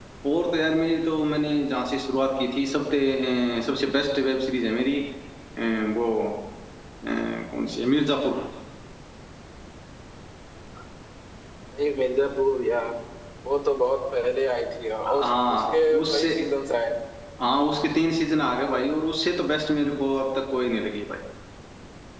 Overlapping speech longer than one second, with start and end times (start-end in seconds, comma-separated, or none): 15.1-16.3